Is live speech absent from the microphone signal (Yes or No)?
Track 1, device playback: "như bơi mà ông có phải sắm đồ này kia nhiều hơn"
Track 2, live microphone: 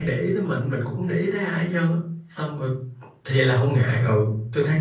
No